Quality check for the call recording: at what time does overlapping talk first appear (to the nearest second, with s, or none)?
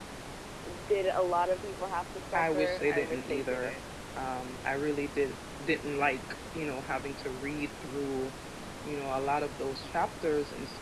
2 s